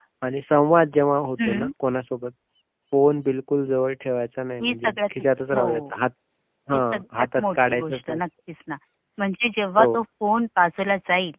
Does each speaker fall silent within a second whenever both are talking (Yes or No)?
No